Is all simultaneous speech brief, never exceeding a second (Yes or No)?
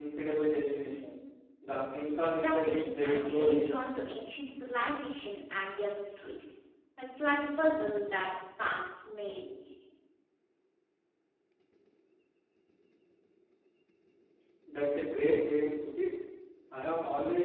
No